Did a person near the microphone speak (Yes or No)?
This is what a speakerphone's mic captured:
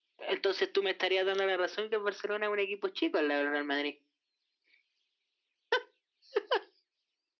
No